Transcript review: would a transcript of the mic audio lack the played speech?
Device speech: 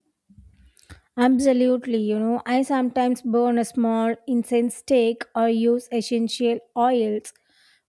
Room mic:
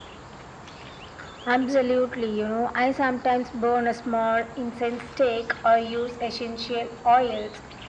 No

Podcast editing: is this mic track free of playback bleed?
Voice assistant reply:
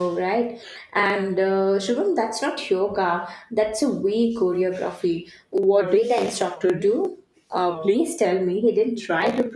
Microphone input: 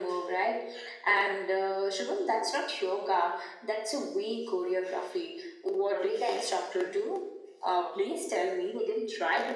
No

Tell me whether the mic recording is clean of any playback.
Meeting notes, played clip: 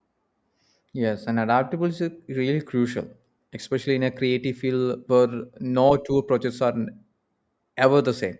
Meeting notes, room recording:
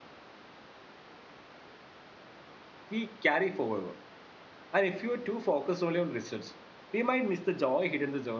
Yes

